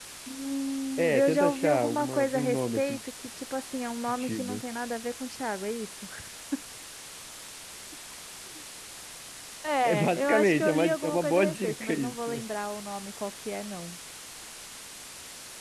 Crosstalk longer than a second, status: present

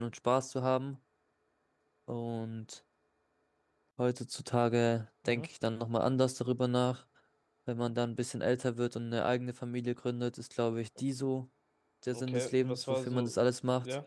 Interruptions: present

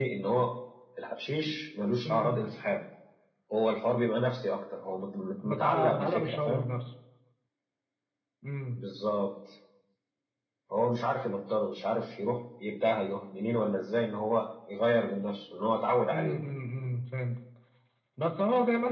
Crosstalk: present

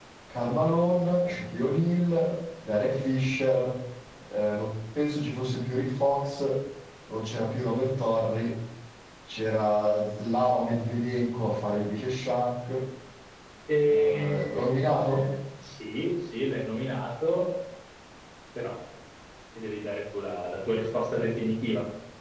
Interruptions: present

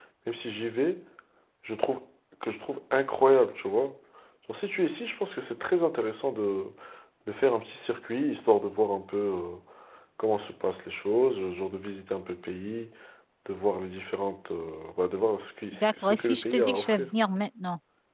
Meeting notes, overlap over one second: present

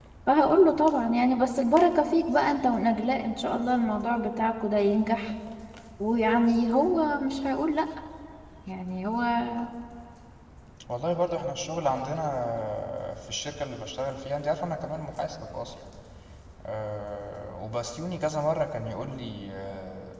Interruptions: none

